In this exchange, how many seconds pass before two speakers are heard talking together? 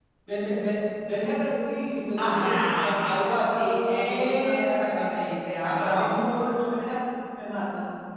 2.2 s

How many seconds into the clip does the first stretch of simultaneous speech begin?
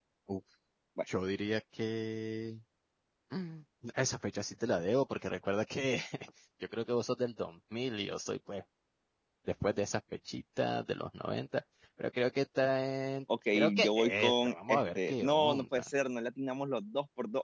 13.5 s

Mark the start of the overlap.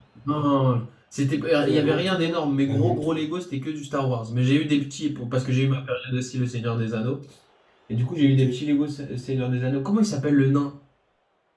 1.6 s

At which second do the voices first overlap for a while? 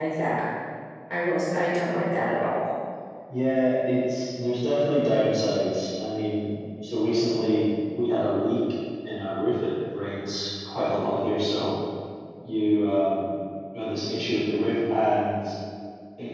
none

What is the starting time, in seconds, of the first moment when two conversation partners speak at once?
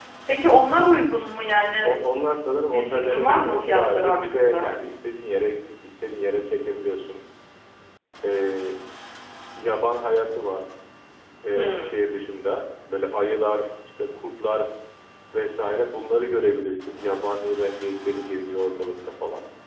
2.7 s

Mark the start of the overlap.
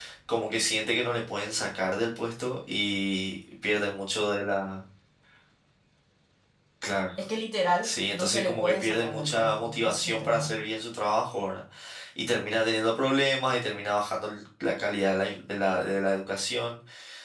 7.8 s

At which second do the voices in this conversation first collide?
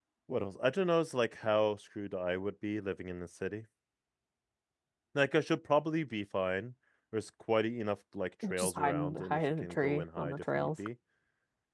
8.4 s

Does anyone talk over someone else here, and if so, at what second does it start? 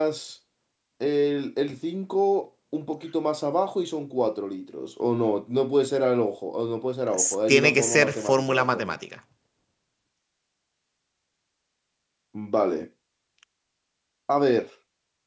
7.1 s

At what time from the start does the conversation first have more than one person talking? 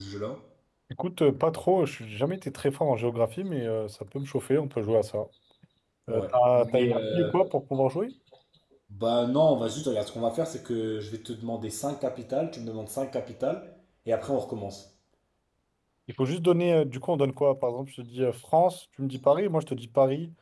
6.1 s

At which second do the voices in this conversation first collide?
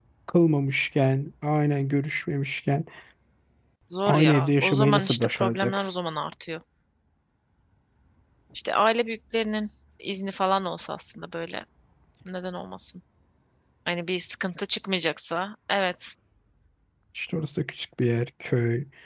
4.1 s

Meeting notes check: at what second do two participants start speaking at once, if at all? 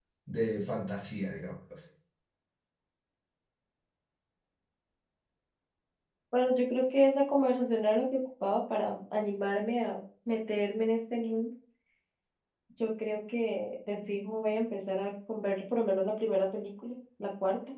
none

